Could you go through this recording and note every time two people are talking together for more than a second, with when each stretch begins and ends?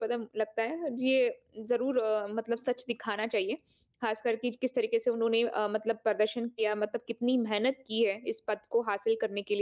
none

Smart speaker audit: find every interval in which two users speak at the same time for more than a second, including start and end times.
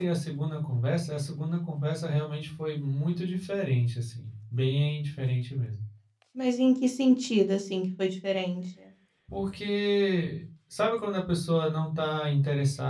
none

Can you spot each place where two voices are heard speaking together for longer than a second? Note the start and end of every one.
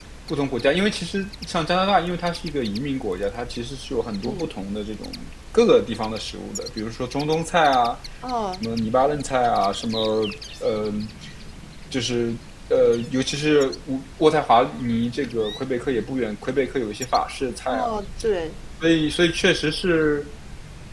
none

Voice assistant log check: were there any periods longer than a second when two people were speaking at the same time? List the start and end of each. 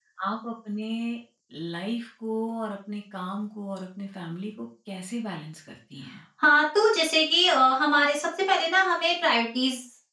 none

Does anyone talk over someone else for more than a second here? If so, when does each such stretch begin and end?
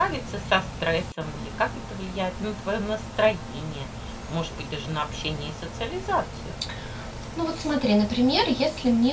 none

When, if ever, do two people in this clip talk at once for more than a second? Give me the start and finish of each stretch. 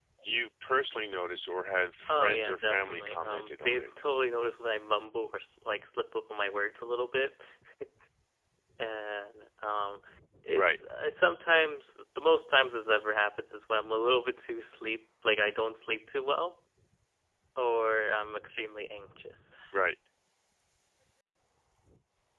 2.1-3.9

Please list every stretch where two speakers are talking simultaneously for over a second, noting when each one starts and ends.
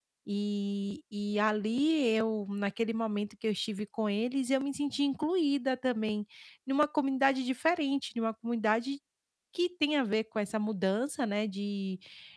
none

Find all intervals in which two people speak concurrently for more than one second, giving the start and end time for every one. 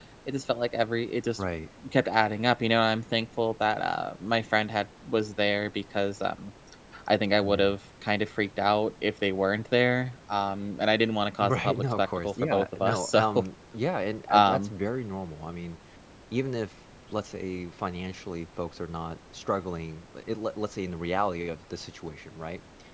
11.4-13.4

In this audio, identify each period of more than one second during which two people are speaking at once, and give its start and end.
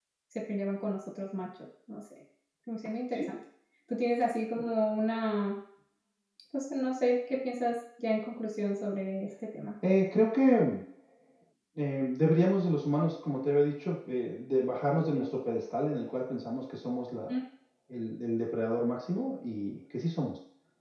none

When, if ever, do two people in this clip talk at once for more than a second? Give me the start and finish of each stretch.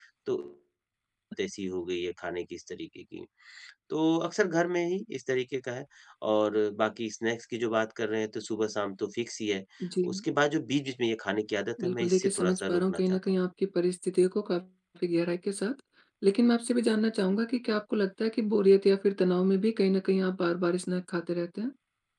11.8-13.2

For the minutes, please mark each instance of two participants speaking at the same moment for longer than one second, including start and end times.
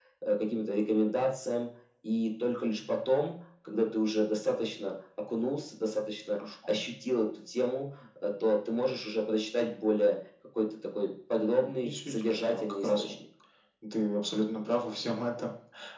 11.8-13.2

